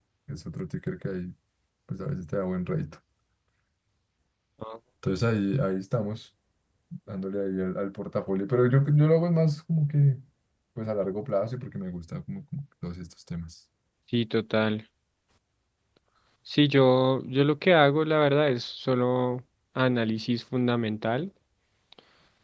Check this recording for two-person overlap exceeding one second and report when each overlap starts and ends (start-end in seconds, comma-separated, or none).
none